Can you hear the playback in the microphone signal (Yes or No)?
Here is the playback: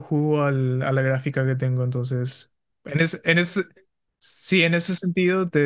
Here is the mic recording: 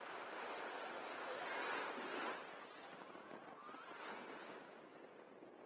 No